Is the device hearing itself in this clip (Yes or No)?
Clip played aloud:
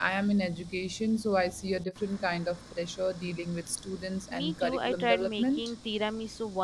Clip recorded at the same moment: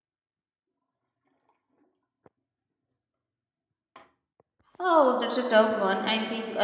No